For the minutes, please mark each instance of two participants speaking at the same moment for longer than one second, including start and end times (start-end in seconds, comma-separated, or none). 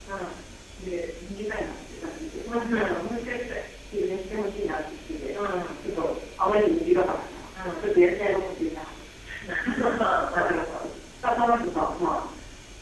none